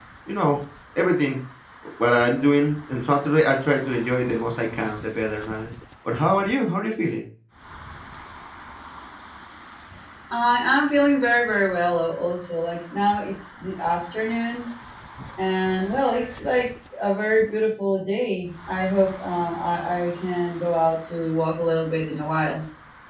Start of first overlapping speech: none

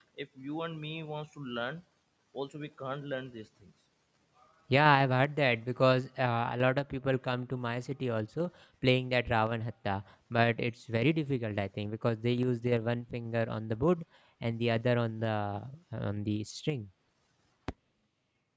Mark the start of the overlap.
none

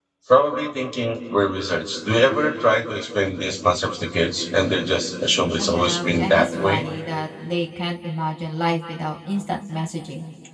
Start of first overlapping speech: 5.6 s

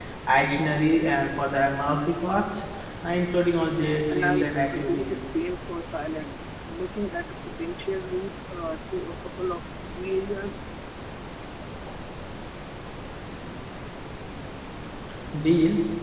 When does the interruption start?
4.1 s

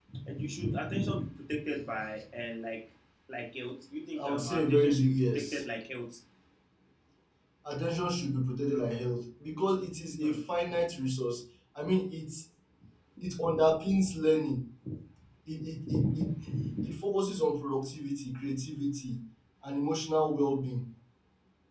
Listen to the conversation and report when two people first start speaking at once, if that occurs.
4.2 s

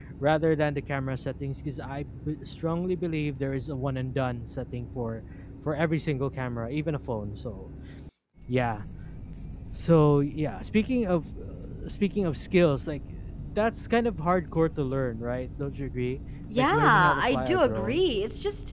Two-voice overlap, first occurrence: 16.5 s

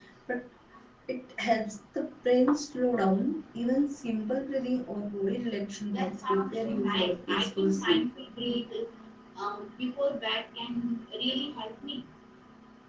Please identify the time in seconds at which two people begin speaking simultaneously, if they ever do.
5.9 s

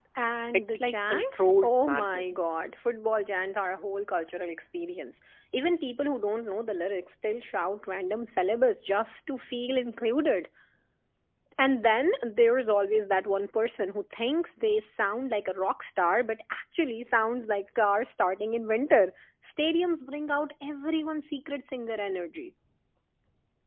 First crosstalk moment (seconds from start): 0.7 s

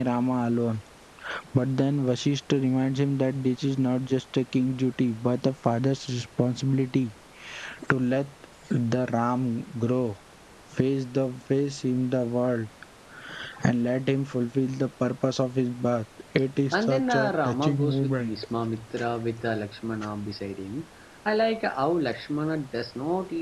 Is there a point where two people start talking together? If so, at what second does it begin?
16.7 s

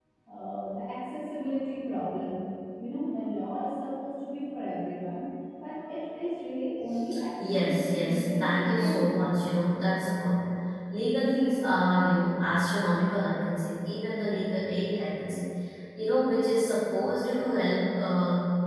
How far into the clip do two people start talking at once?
7.4 s

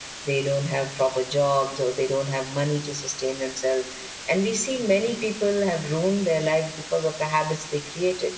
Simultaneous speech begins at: none

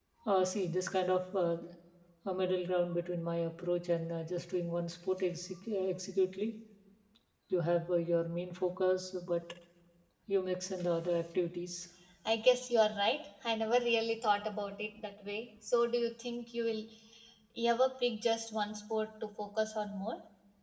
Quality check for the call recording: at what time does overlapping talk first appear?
none

